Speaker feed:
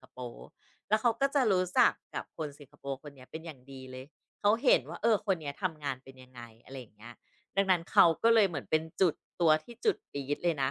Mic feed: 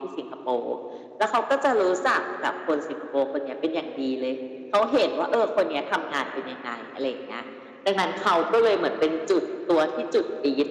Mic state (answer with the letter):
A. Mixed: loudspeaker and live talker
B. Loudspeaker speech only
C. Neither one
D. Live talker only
B